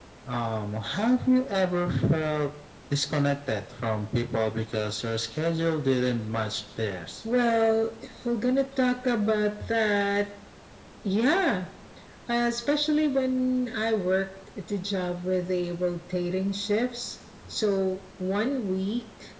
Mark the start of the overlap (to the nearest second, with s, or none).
none